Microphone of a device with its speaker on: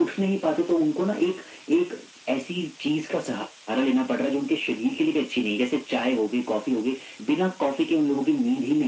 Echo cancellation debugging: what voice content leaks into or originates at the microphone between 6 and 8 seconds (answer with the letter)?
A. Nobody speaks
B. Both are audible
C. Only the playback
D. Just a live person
C